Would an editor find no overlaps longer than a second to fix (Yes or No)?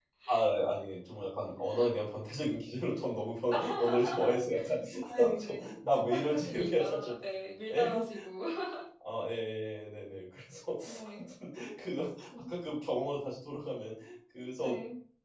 No